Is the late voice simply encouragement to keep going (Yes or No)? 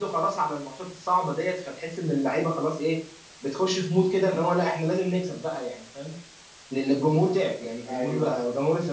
Yes